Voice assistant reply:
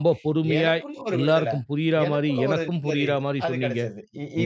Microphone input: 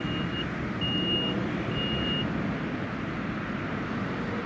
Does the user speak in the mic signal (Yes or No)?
No